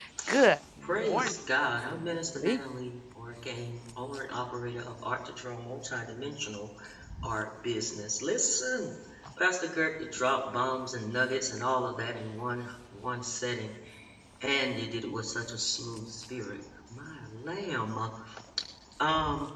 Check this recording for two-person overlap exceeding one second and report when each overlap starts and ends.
0.8-2.6

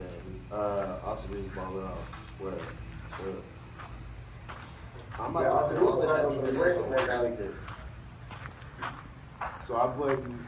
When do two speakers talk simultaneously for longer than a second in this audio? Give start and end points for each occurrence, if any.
5.4-7.2

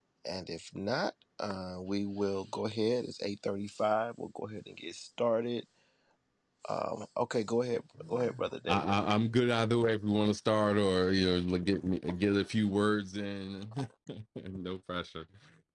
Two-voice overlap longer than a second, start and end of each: none

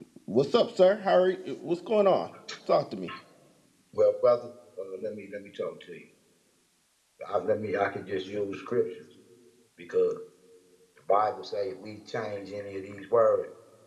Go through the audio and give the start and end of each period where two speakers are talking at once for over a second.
none

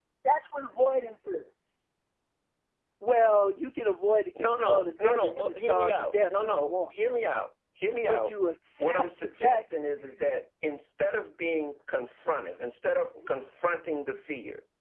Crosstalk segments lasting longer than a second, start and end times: 4.4-6.7, 8.8-10.4

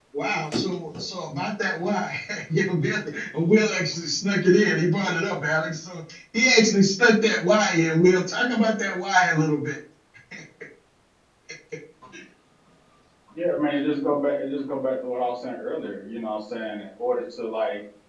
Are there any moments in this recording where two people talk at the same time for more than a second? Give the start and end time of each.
none

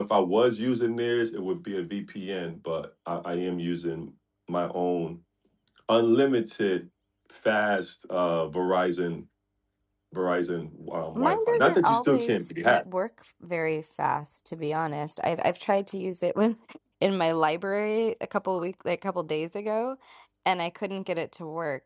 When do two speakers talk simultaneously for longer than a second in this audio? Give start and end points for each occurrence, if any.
11.2-12.8

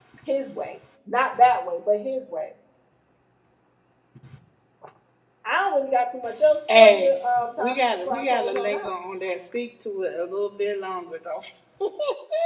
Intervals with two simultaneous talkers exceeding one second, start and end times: 7.6-8.9

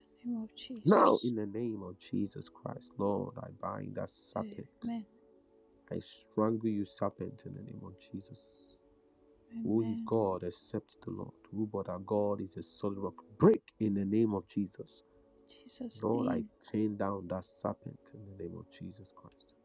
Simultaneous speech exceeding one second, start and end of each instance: none

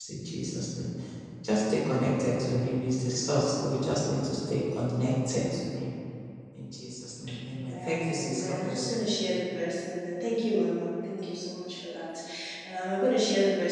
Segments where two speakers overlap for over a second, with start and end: 7.5-9.0

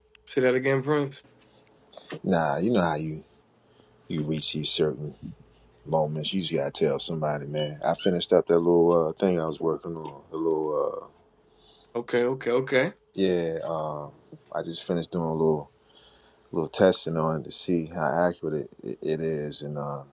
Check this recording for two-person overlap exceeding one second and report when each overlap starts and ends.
none

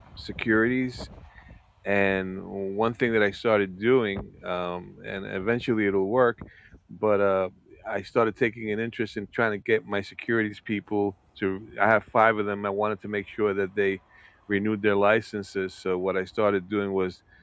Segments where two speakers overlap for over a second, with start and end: none

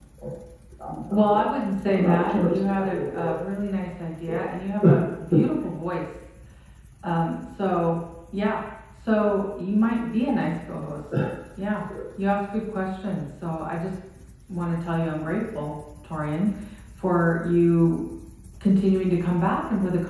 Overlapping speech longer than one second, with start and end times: 1.9-3.4

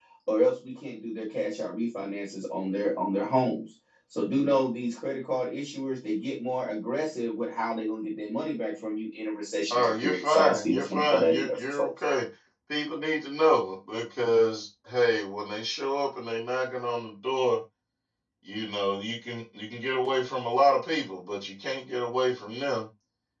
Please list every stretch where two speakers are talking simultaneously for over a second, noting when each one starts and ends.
9.7-11.9

